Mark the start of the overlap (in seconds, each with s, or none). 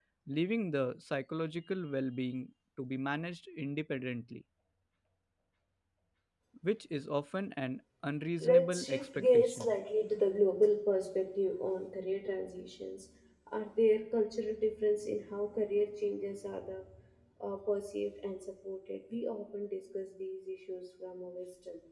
8.4 s